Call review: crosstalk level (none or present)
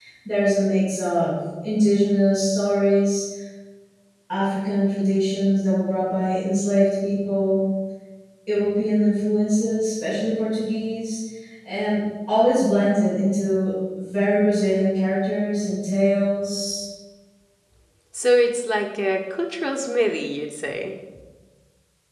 none